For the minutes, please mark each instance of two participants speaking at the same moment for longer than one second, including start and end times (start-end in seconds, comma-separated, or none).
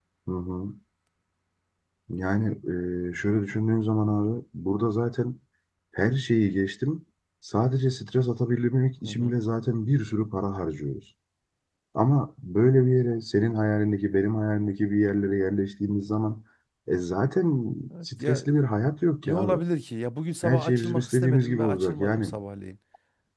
20.4-22.3